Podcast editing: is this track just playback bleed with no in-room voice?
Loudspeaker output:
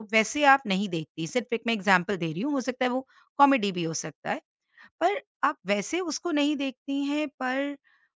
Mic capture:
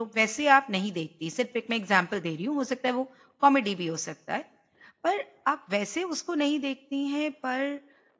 Yes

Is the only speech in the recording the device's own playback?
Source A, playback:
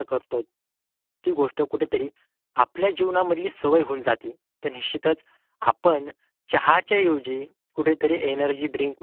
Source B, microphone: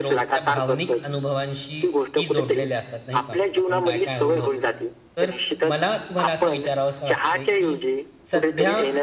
No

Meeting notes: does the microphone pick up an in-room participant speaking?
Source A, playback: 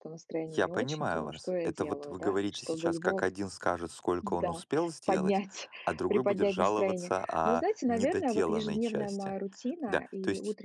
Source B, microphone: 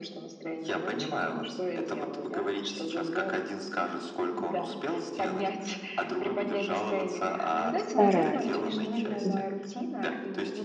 Yes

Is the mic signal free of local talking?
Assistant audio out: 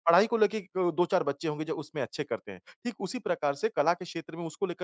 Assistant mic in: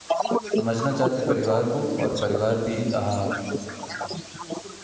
No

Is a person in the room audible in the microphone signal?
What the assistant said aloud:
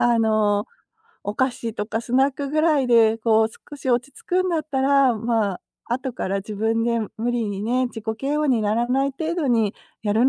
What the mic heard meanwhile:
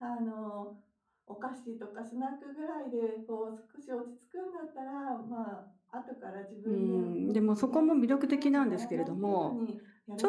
Yes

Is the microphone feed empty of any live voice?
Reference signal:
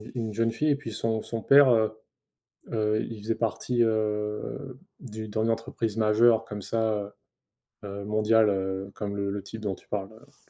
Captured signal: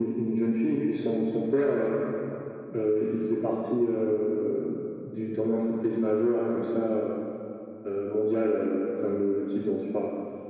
Yes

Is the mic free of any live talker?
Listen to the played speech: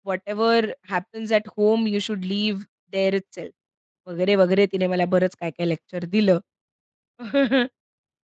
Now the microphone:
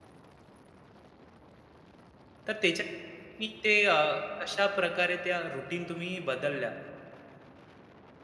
No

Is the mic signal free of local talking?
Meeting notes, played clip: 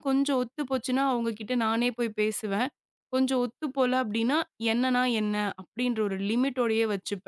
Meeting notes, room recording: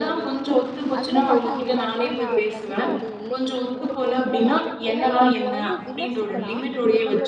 No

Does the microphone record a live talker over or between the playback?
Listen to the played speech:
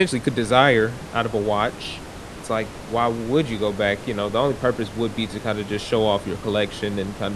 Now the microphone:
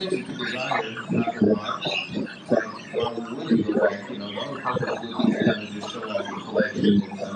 No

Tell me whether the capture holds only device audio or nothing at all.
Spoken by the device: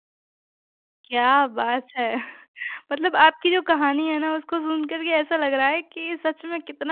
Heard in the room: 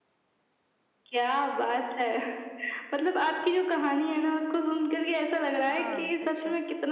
No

